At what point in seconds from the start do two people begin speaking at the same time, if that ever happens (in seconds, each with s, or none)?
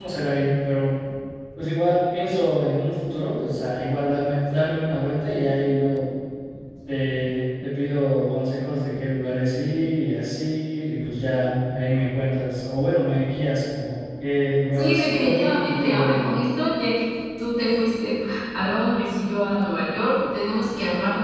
14.8 s